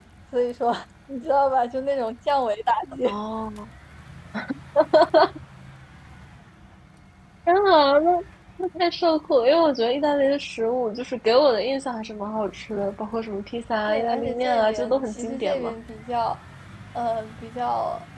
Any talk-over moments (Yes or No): Yes